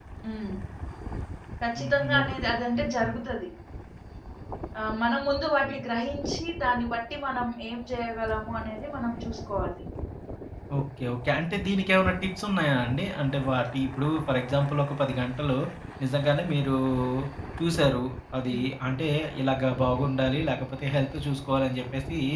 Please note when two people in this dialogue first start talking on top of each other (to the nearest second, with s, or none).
2 s